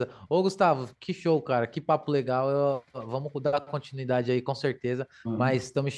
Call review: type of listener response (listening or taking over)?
listening